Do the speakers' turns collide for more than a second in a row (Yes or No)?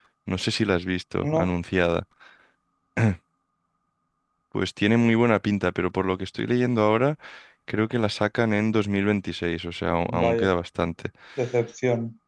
No